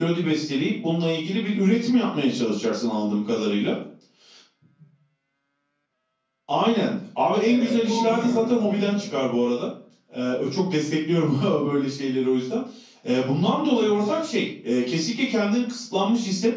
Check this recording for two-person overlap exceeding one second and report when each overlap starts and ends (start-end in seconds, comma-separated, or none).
7.4-9.2